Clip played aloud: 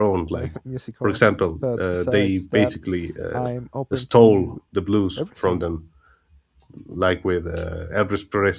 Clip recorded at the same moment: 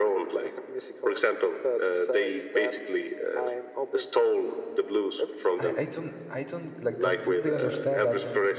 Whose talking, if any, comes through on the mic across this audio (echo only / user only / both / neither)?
both